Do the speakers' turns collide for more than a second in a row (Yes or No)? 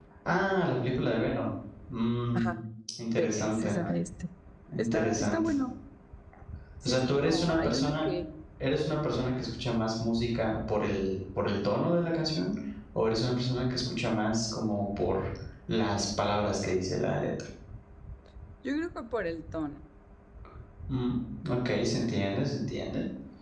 Yes